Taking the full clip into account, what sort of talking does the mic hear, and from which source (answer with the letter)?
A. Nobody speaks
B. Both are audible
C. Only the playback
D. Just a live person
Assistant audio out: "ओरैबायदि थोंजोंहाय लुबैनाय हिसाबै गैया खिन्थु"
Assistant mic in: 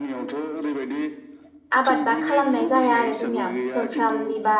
B